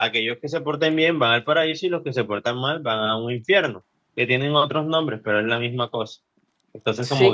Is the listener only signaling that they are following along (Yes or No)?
Yes